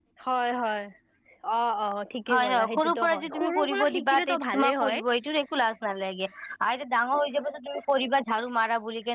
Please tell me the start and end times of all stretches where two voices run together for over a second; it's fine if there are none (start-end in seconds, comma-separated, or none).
2.3-5.0